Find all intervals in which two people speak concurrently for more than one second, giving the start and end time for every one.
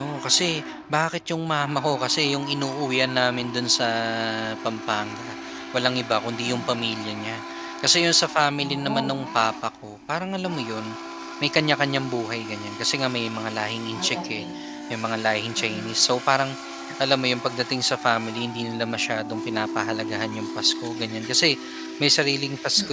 none

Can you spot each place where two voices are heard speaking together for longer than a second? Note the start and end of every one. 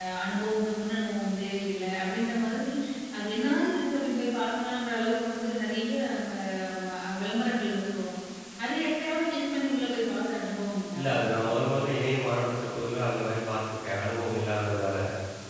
none

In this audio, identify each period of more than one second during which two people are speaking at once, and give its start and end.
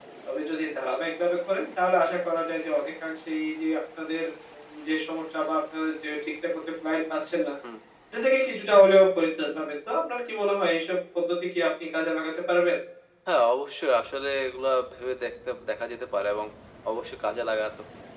none

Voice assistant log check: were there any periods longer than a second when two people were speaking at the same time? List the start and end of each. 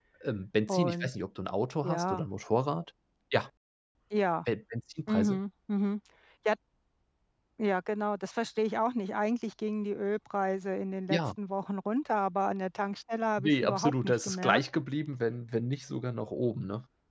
13.4-14.6

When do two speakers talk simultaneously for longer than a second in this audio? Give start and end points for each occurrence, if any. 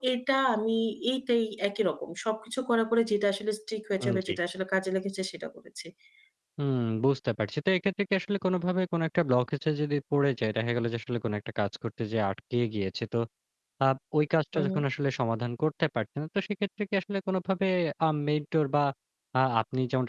none

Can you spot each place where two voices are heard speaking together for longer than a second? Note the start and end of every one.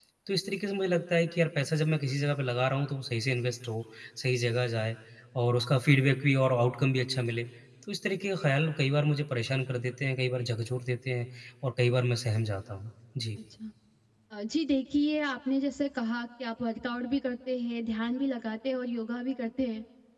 none

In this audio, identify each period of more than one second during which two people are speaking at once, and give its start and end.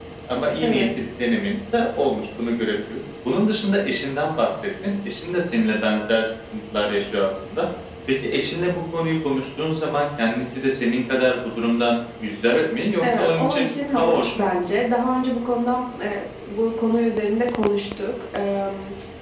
13.2-14.4

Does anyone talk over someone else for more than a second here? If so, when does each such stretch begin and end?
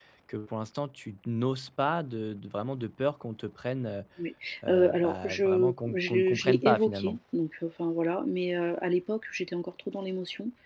4.7-7.2

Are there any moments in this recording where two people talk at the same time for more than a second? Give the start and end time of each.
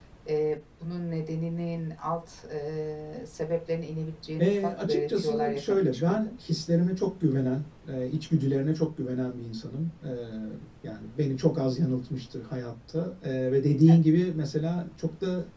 4.4-6.3

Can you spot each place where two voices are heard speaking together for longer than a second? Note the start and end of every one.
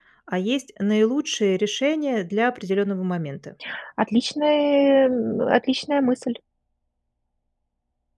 none

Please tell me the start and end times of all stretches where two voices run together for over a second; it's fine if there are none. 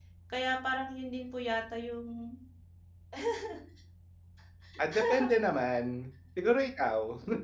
none

